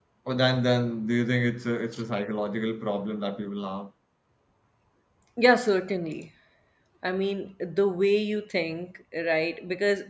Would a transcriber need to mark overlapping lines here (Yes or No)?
No